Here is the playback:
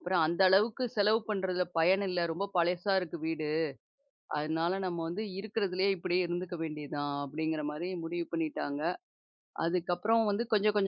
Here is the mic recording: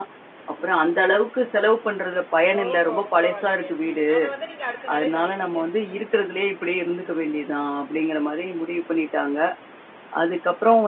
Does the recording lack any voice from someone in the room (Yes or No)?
No